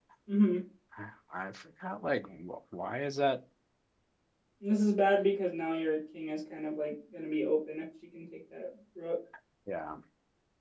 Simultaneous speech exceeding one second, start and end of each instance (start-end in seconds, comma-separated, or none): none